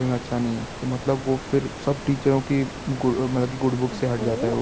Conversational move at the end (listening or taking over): taking over